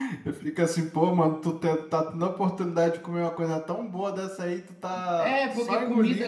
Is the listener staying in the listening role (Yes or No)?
No